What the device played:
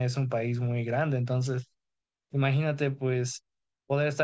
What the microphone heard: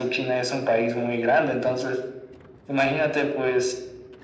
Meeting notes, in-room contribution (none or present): none